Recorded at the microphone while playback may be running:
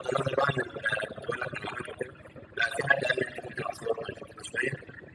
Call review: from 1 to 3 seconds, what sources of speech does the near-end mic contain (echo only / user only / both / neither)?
echo only